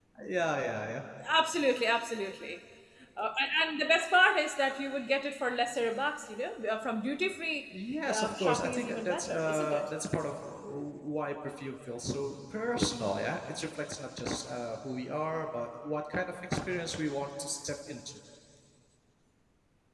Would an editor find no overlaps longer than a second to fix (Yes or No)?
No